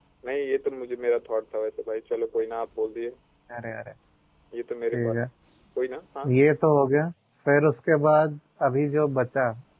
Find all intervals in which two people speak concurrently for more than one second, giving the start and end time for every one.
none

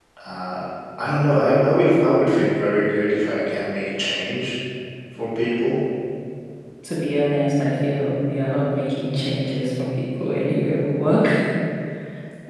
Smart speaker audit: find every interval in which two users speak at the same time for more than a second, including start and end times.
none

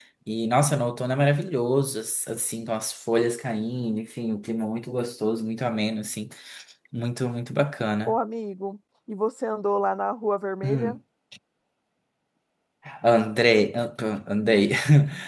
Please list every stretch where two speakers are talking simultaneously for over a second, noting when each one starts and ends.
none

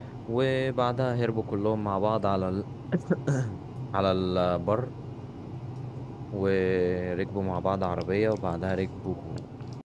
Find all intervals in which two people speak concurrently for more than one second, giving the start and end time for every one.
none

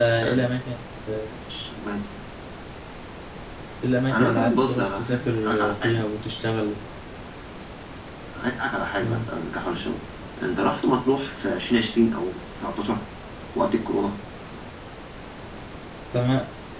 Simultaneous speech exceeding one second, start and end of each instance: 4.1-6.1

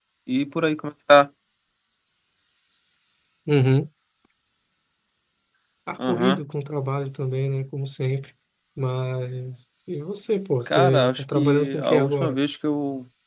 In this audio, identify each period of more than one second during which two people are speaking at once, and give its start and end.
10.7-12.4

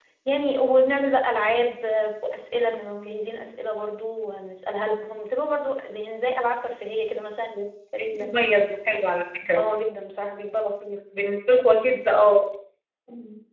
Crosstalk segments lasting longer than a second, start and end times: none

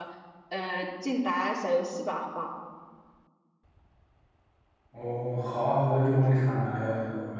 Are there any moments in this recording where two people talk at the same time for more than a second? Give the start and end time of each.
none

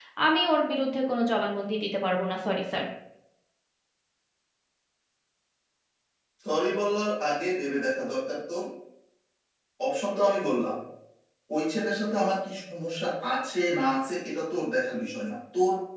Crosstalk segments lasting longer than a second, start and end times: none

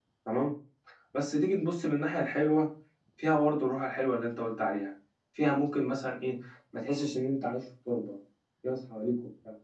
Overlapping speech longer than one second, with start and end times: none

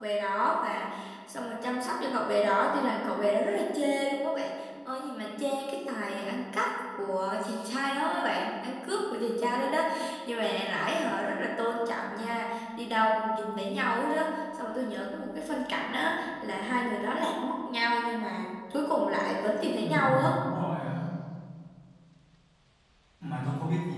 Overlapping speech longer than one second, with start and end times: none

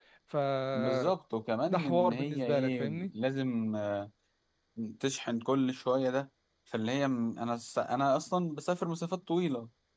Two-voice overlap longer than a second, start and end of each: 1.7-3.1

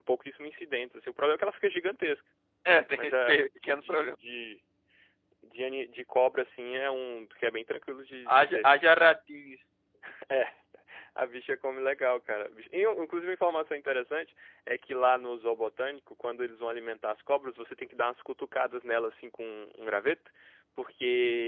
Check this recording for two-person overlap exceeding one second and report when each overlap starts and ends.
3.0-4.2

